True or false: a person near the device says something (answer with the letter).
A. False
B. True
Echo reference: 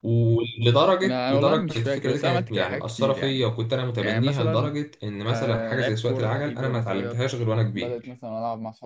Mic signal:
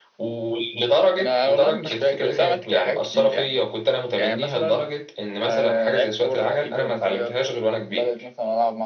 A